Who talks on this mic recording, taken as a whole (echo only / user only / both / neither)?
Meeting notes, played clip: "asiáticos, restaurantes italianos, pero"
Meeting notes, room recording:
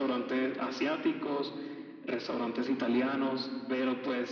echo only